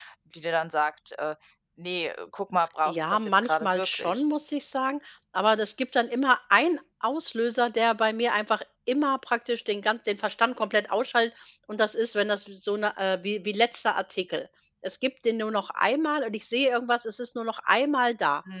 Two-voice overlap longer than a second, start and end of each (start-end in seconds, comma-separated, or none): 2.9-4.2